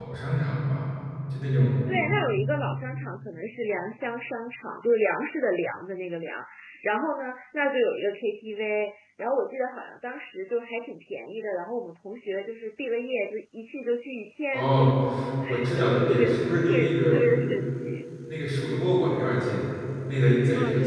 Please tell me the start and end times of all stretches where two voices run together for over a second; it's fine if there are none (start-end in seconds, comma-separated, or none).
15.8-17.2